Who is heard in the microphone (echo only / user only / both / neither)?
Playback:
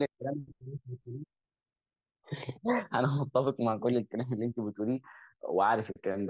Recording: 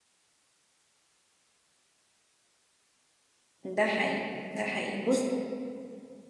user only